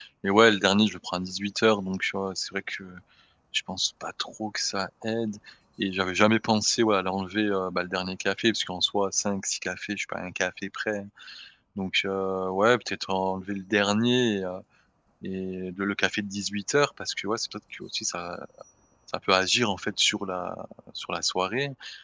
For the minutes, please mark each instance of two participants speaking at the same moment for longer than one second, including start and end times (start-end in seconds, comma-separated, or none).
none